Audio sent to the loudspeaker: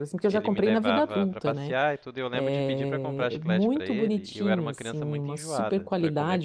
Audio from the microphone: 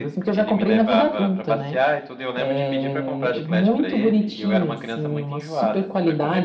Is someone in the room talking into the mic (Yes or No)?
No